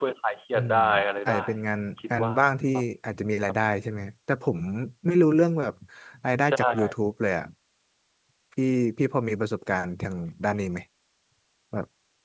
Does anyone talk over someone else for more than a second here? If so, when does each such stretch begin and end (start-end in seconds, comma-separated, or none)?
none